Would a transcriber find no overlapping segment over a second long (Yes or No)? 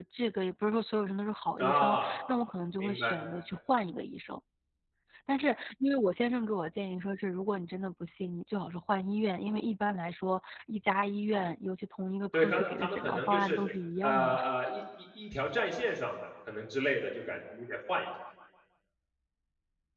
No